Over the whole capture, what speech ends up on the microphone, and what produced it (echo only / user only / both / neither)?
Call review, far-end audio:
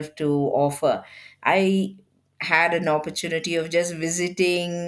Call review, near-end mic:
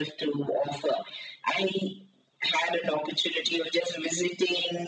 echo only